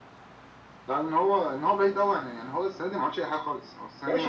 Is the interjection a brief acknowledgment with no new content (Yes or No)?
No